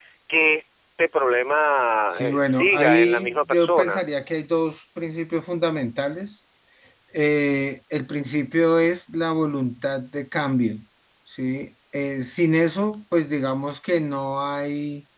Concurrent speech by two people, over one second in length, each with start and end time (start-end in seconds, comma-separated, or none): 2.1-4.0